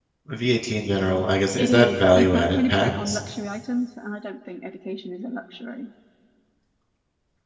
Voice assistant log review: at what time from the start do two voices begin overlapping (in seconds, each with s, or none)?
1.6 s